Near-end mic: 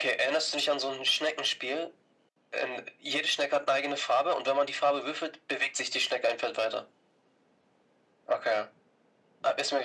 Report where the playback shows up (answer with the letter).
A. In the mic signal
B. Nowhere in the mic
A